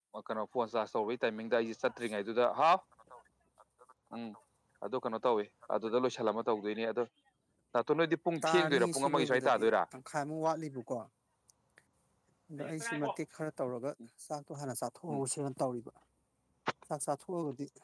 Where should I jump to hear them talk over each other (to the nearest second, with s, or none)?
8 s